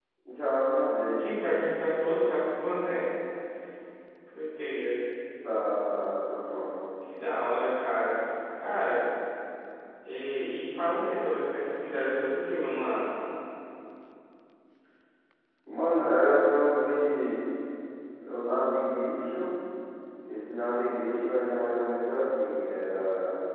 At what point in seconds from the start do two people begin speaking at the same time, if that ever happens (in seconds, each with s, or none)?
none